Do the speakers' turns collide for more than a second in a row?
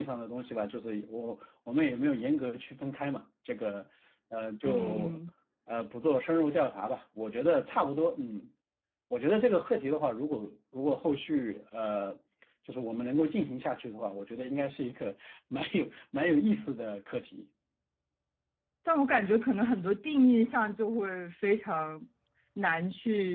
No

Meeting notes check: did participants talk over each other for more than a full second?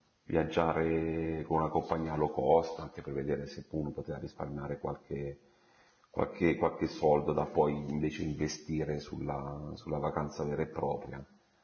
No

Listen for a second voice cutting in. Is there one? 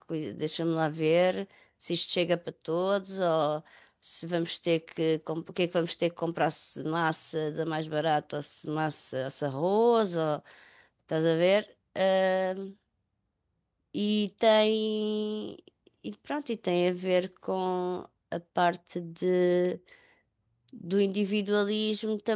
No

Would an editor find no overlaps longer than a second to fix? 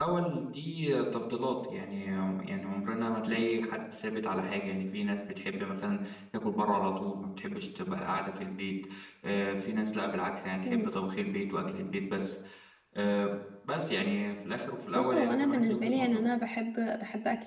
No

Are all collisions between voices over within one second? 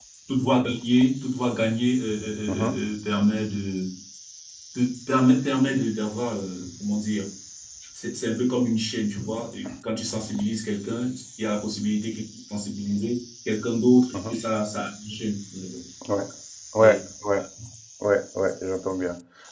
Yes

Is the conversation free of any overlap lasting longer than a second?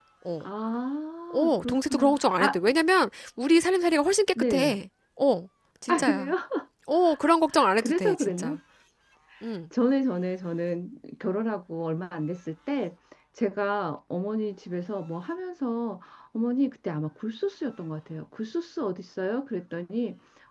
No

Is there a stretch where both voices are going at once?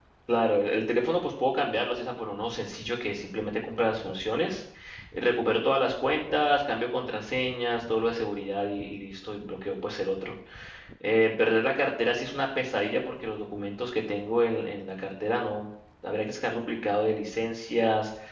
No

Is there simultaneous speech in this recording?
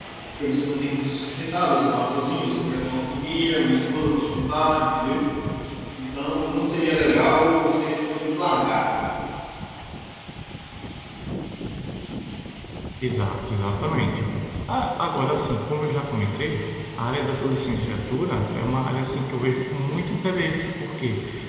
No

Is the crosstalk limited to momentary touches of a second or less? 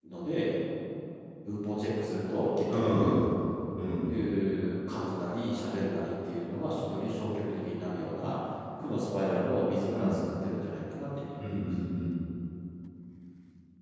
Yes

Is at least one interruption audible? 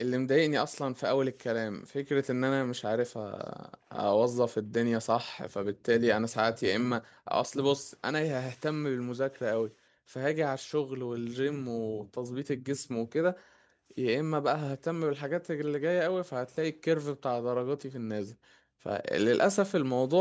No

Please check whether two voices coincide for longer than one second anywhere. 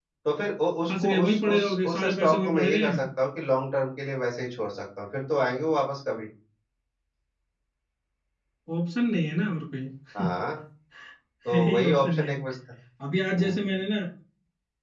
Yes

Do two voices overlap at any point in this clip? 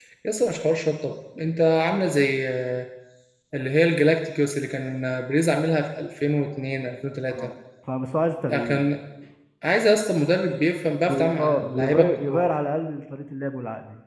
Yes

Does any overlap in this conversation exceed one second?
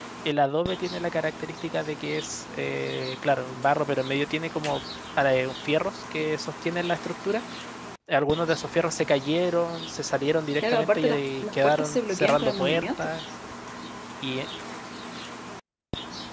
Yes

